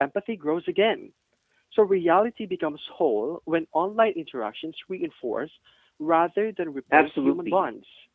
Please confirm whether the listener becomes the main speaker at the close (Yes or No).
Yes